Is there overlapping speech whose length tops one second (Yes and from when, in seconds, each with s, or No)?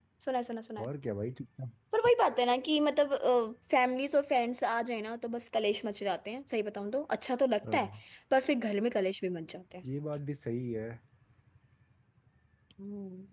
No